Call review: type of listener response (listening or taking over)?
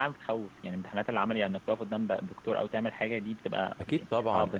taking over